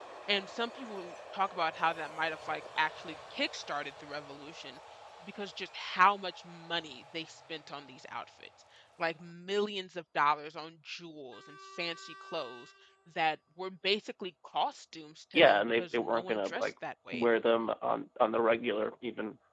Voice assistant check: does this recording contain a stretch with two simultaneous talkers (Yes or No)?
Yes